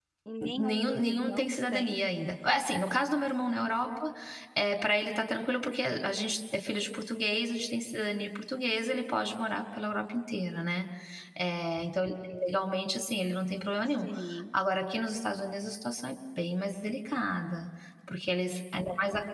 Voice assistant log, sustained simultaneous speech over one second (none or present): present